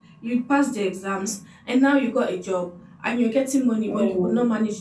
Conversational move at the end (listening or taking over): listening